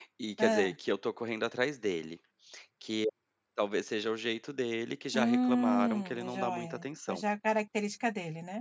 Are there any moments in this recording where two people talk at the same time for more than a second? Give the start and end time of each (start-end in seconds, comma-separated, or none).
5.1-7.2